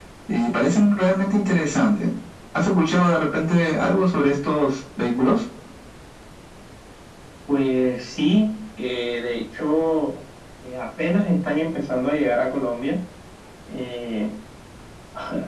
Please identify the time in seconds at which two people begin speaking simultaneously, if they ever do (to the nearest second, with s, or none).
none